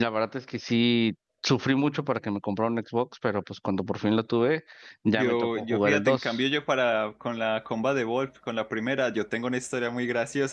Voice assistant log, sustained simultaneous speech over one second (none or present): present